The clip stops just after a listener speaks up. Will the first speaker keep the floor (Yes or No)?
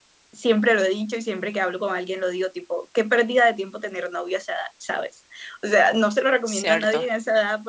Yes